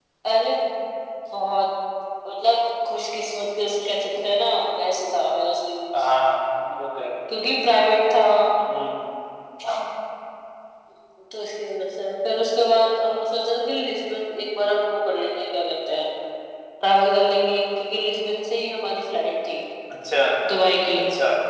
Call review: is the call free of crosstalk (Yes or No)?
Yes